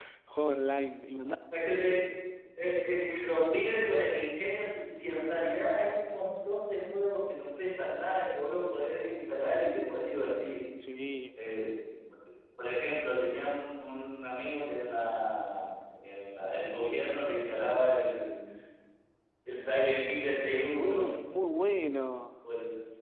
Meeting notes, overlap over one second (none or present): none